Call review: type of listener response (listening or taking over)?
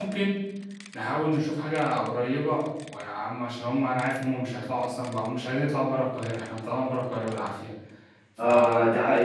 taking over